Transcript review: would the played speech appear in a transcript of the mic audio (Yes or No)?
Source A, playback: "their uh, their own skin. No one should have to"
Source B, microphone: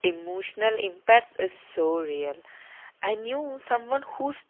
No